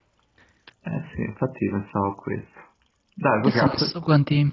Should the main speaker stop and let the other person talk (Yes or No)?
Yes